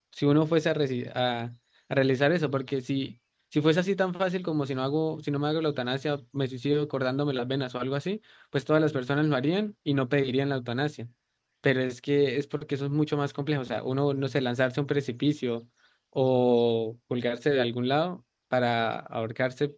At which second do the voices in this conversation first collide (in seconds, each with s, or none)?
none